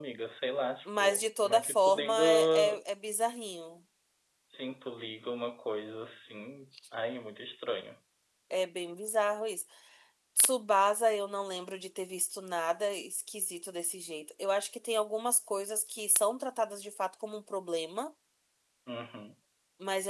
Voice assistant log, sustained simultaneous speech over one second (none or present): present